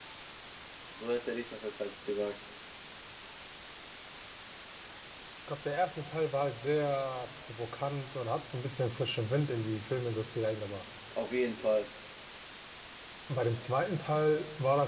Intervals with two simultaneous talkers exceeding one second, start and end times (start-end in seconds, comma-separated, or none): none